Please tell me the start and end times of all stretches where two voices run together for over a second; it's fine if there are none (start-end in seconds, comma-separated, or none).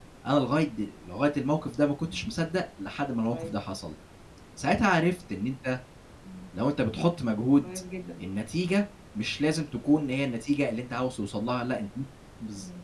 none